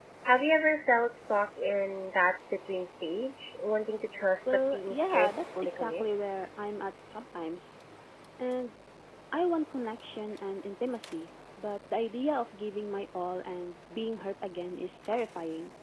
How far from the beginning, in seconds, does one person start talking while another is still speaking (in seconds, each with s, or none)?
4.5 s